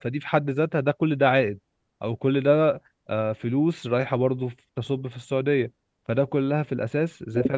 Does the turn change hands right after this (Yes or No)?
No